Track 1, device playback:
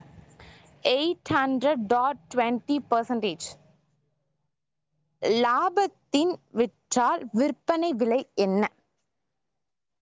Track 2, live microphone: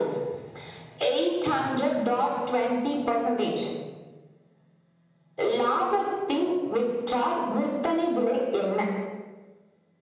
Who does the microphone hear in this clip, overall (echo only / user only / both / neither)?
echo only